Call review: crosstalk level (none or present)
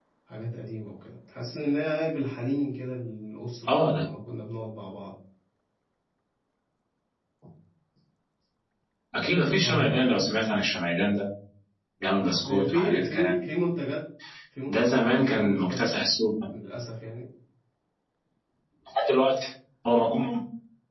present